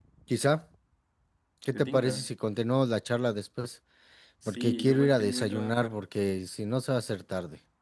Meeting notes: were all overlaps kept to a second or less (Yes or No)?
No